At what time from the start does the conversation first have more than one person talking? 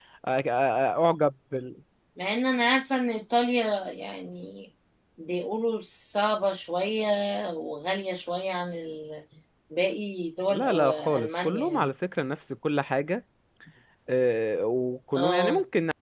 10.5 s

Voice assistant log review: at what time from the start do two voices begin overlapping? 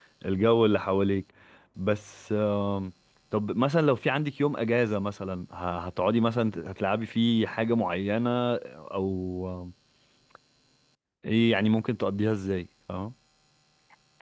none

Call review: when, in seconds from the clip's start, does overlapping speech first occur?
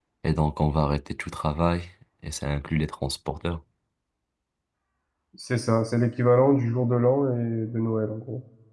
none

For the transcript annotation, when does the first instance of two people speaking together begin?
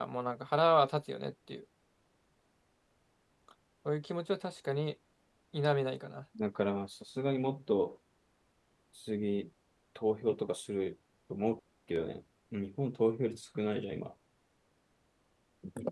none

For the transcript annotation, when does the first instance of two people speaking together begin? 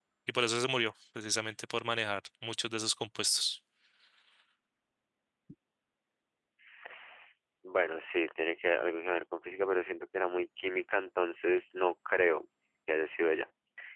none

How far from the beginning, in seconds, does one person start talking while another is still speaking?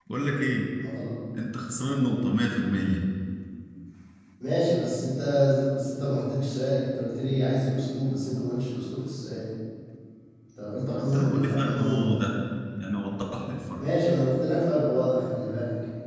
10.9 s

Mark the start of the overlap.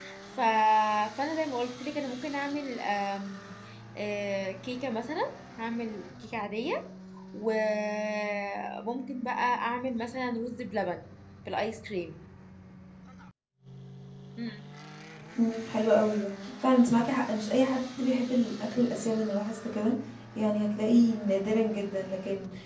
none

